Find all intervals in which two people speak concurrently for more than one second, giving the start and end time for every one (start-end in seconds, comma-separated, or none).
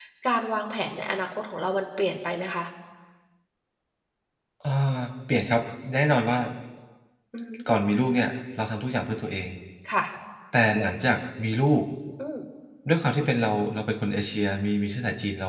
none